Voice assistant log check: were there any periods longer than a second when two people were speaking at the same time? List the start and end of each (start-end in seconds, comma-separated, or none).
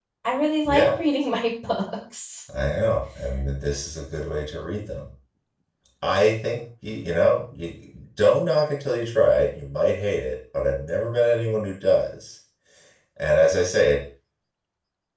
none